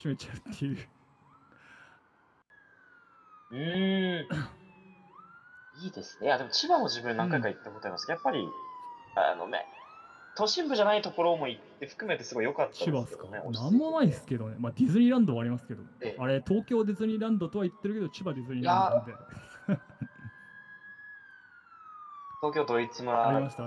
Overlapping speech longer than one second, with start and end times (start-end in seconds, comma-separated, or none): 12.8-14.2